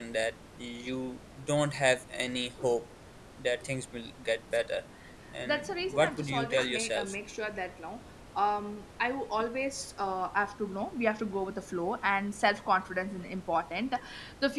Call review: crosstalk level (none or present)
present